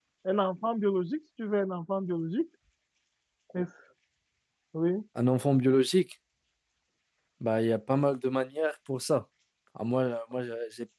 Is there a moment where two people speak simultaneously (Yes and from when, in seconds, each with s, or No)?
No